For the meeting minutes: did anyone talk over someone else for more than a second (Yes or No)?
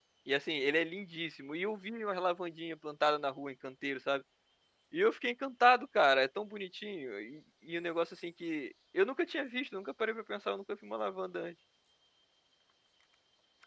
No